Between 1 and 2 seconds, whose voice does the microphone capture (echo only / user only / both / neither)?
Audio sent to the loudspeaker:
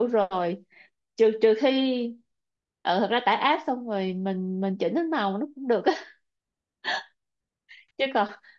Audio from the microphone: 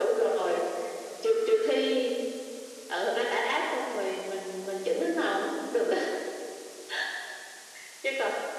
echo only